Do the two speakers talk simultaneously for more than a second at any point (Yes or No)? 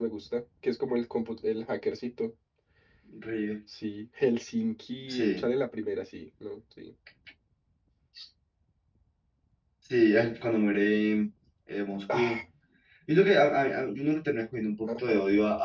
No